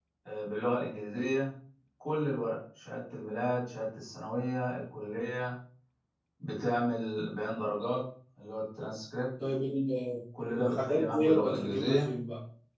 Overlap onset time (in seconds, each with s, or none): 10.3 s